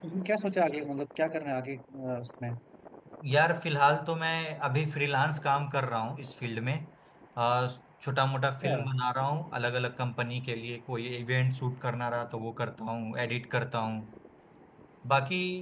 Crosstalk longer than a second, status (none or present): none